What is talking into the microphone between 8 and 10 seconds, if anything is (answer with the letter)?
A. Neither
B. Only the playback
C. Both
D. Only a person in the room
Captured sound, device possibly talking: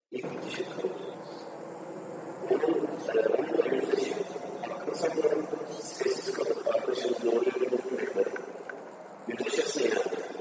B